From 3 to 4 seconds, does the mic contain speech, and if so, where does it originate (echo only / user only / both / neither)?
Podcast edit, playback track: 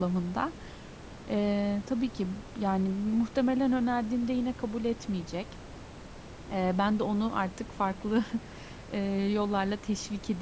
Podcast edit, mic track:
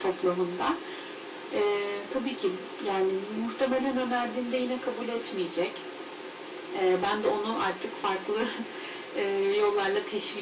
echo only